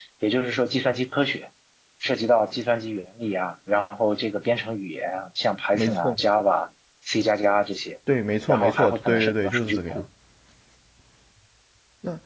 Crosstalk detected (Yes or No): Yes